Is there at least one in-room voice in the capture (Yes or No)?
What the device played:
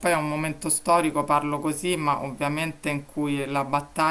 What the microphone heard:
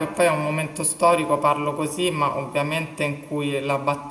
No